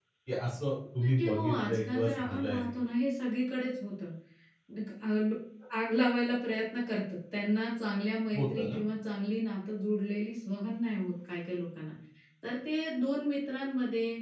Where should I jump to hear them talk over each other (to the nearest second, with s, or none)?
1 s